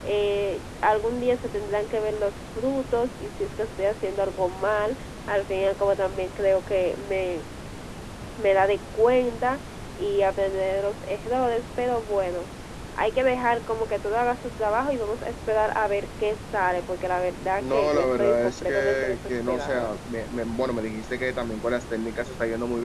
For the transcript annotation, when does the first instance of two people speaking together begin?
18 s

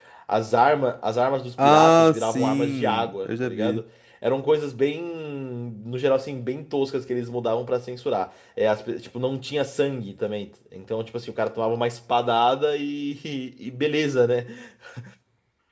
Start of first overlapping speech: 2 s

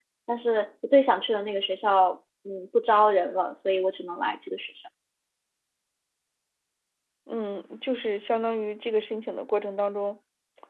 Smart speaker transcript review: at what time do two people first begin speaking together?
none

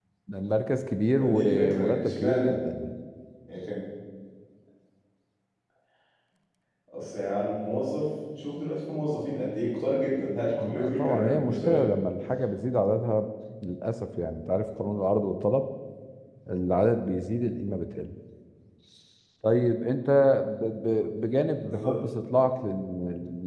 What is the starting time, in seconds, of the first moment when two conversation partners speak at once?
1 s

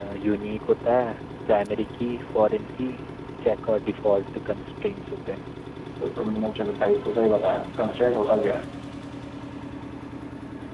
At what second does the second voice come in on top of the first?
none

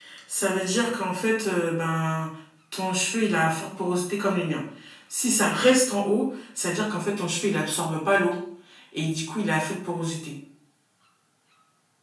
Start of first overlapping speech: none

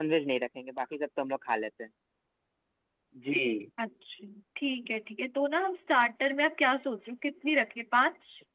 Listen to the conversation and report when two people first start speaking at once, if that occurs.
none

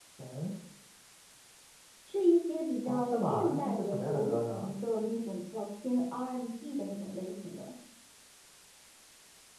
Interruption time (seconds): 3 s

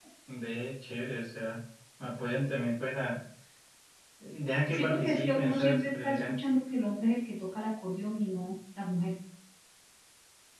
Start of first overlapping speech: 5 s

